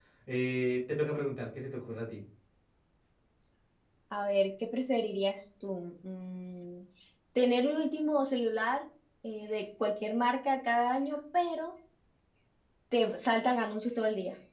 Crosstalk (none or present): none